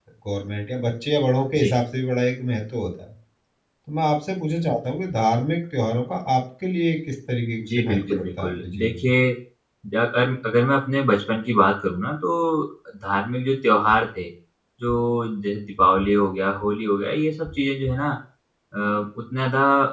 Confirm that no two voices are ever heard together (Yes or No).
No